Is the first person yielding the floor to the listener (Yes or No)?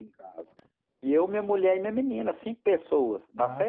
Yes